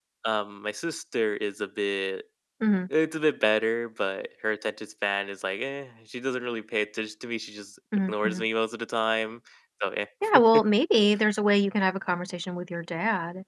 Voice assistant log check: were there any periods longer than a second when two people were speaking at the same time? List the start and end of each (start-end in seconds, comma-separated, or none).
none